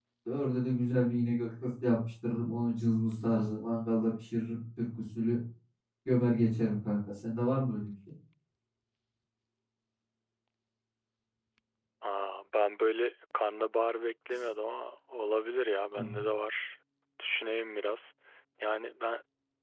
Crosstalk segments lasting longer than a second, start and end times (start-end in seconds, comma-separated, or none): none